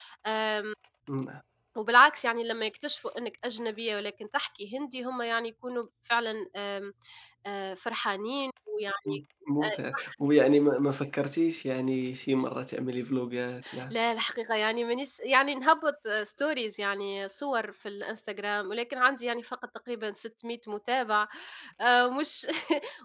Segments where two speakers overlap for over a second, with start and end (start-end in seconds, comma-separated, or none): none